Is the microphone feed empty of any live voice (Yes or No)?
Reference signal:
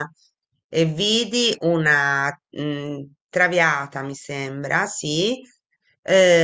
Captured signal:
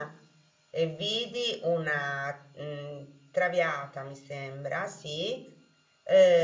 Yes